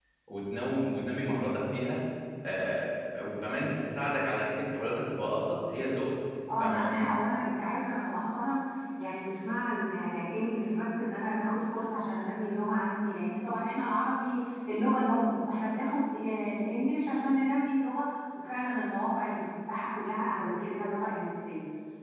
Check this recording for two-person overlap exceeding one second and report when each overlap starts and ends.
none

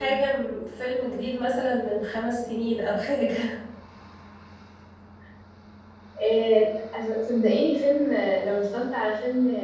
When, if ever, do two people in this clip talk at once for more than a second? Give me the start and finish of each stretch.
none

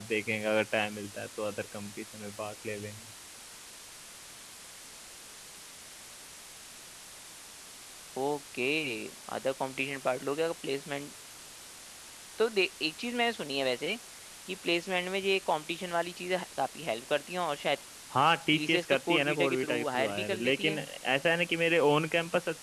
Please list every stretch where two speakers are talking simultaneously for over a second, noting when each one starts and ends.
18.5-20.8

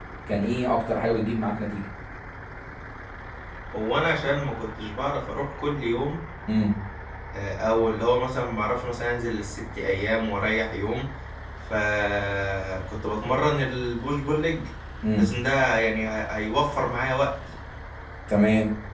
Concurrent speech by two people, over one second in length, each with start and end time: none

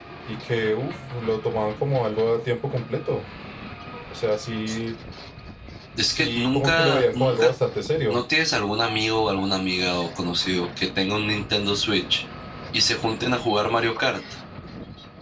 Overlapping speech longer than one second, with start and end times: 6.1-7.5

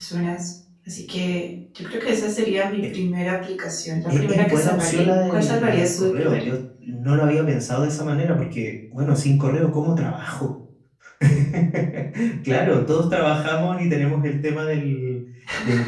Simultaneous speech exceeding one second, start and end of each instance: 4.1-6.4

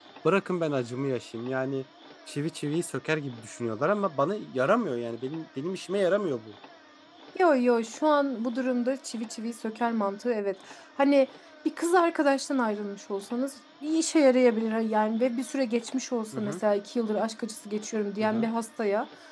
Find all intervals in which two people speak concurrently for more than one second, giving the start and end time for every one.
none

